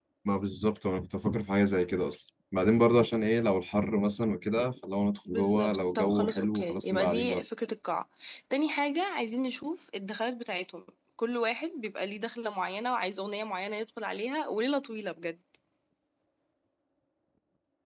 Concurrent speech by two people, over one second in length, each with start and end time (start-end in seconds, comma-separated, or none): 5.3-7.4